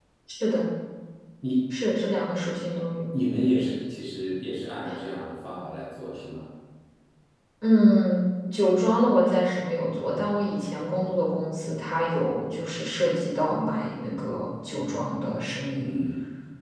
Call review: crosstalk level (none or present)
none